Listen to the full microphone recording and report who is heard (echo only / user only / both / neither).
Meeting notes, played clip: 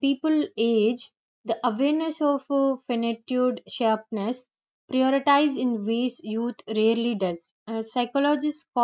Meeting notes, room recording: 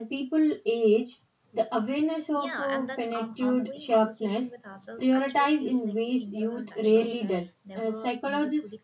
both